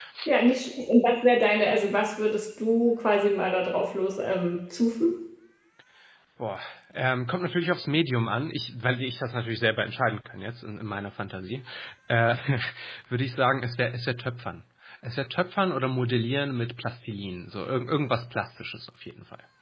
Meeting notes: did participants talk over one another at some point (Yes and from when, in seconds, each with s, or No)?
No